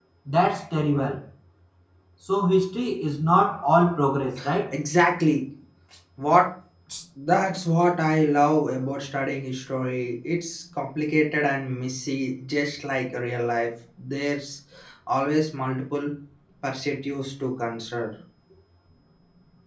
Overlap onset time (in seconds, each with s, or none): none